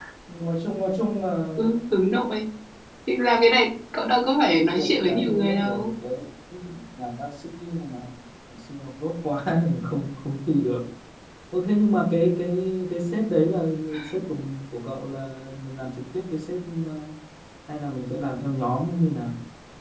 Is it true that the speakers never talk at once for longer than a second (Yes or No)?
No